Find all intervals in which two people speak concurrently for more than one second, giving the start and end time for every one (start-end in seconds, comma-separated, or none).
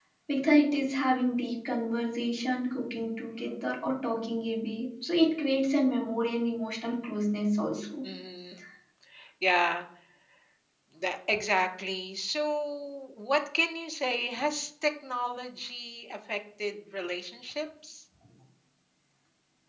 none